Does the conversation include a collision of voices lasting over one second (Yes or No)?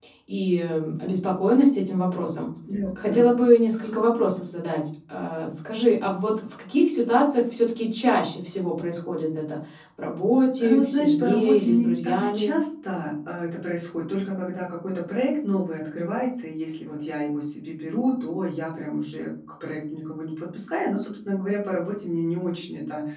Yes